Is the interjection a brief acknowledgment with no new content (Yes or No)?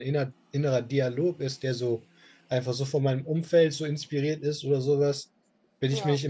Yes